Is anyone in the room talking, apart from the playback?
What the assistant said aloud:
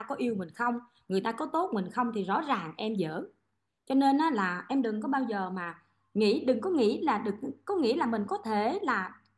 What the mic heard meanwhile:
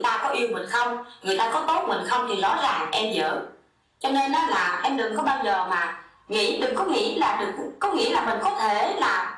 No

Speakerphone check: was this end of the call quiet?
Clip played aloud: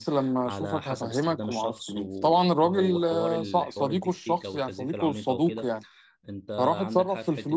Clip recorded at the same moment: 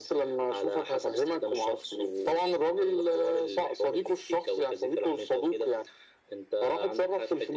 Yes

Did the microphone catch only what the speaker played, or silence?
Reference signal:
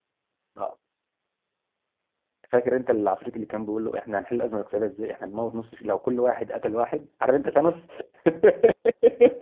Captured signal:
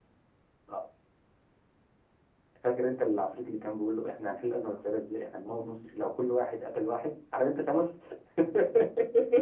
Yes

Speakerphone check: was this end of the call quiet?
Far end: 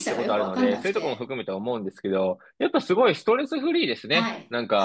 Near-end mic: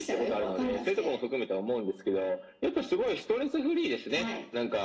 Yes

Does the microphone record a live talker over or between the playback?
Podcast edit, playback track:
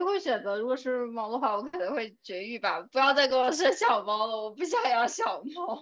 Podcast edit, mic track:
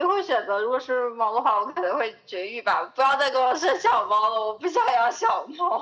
No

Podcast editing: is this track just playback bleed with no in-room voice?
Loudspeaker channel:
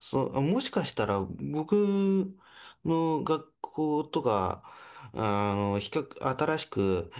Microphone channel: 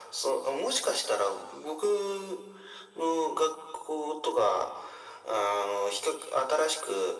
Yes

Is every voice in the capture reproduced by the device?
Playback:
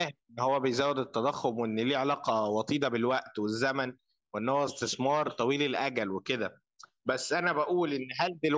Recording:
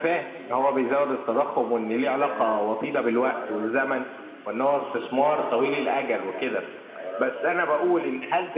No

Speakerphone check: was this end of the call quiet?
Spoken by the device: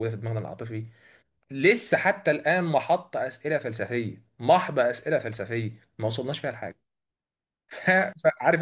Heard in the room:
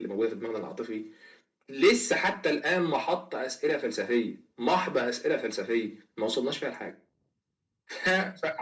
Yes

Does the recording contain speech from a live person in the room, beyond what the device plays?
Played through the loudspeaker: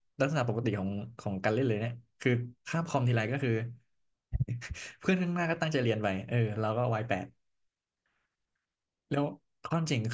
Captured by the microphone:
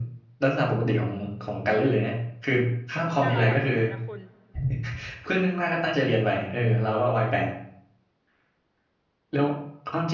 Yes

